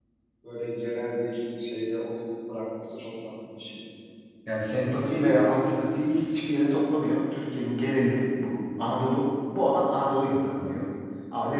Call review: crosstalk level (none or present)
none